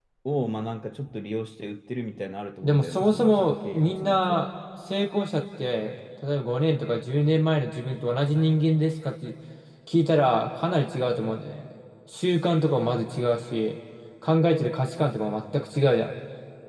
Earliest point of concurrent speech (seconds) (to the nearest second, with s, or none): 3 s